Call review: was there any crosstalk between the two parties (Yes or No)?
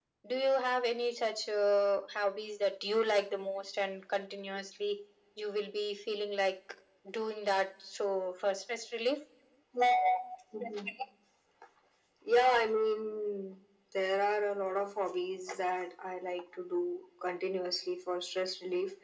No